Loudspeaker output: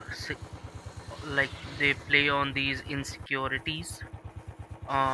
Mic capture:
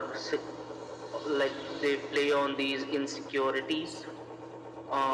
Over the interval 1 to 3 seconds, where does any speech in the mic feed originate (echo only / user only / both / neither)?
echo only